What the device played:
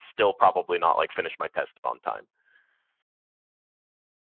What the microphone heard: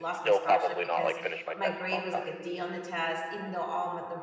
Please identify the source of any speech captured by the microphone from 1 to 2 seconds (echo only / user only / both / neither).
both